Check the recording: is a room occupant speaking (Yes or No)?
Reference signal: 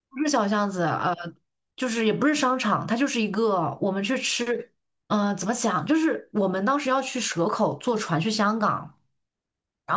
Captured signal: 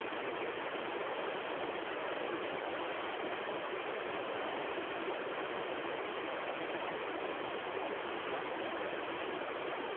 No